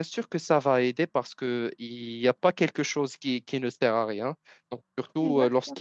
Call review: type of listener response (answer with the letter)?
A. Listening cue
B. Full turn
A